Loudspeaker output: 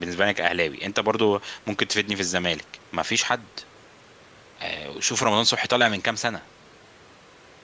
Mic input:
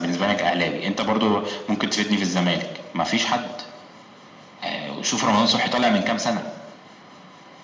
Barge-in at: none

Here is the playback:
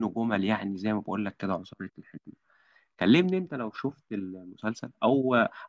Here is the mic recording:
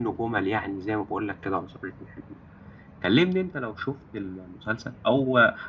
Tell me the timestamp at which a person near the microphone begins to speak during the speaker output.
none

